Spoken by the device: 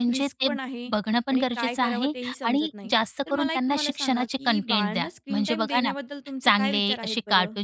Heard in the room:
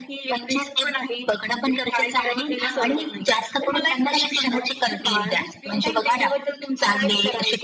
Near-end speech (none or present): present